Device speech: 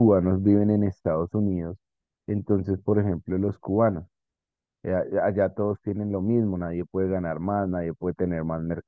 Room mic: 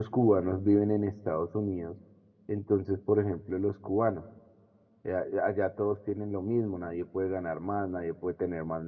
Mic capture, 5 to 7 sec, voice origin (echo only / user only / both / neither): echo only